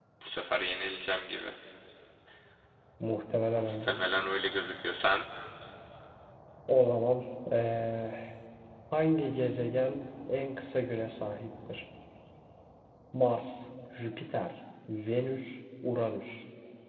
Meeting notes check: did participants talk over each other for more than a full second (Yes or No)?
No